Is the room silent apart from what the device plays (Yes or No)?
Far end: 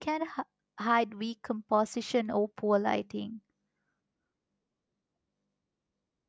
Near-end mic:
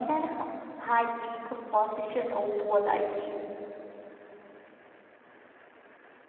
Yes